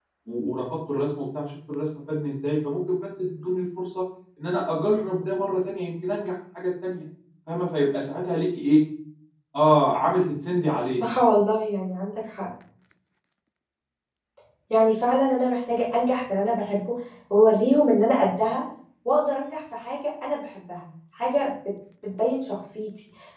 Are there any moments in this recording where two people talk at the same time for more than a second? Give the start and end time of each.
none

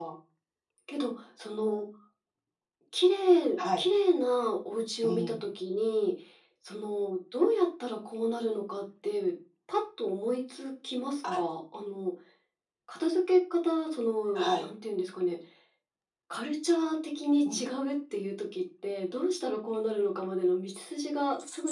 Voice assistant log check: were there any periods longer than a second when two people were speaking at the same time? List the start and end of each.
none

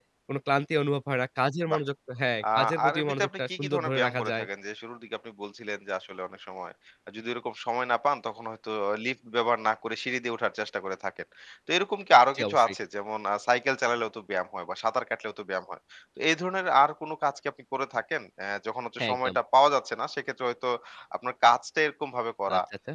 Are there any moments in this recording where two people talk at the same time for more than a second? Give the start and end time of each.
2.5-4.4

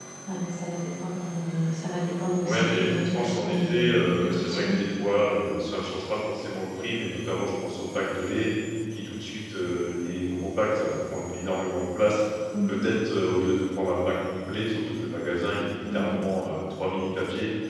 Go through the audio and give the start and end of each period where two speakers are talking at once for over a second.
2.4-4.8

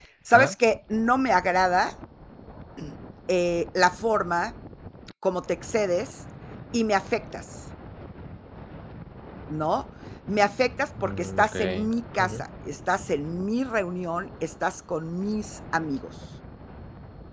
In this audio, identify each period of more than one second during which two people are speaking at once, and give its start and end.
11.0-12.3

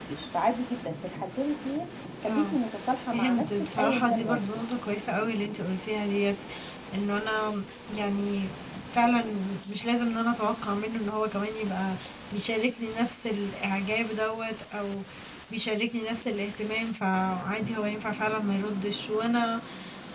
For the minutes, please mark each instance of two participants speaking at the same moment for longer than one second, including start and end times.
3.1-4.6

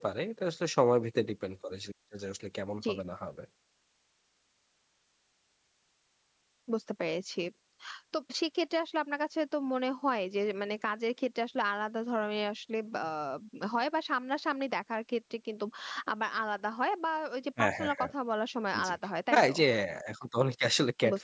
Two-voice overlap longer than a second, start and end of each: none

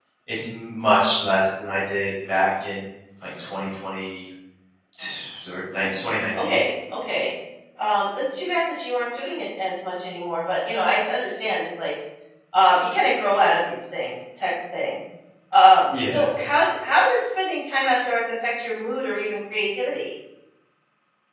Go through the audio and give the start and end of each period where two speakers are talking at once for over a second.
none

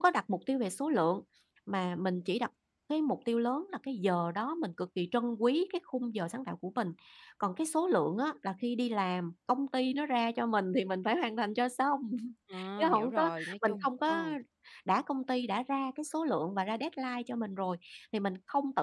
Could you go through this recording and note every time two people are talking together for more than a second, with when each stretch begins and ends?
12.8-14.2

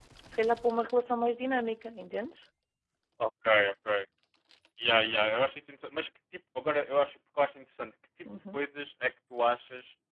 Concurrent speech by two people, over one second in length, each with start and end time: none

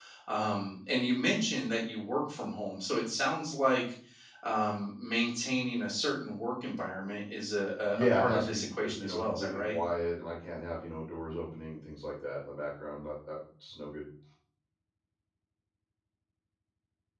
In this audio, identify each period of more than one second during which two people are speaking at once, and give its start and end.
7.9-9.8

